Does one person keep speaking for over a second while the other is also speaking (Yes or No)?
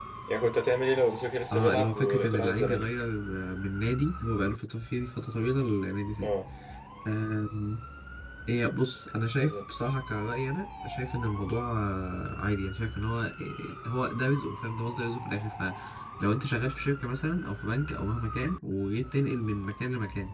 Yes